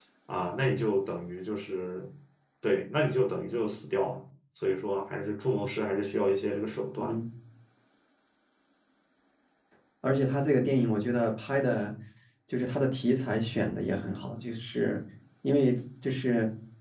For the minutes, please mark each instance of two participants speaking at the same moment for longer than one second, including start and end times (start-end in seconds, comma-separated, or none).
none